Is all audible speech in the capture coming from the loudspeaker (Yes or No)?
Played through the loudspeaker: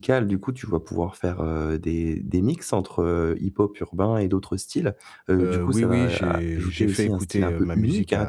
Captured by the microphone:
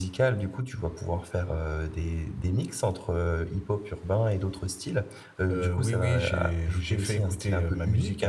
Yes